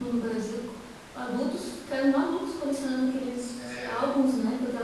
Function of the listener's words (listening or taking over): listening